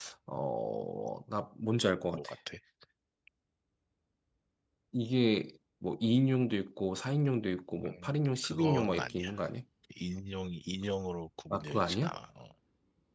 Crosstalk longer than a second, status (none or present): present